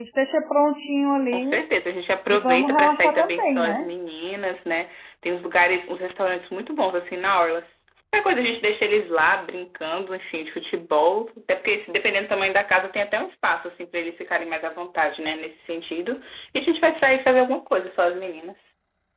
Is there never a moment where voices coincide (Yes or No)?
No